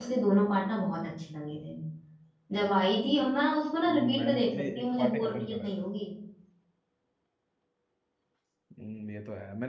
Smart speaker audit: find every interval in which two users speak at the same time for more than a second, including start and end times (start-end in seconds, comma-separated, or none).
3.9-5.7